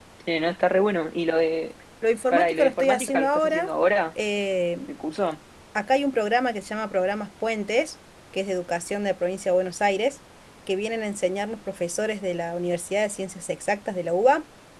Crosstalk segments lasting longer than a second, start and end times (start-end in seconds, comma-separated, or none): 2.3-3.7